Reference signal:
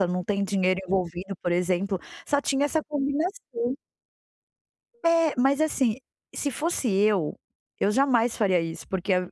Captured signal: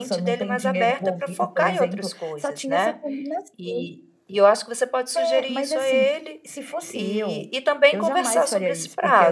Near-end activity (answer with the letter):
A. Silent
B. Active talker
B